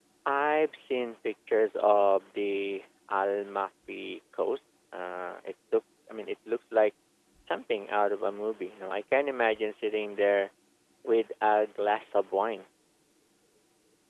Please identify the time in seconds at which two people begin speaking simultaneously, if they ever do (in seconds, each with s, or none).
none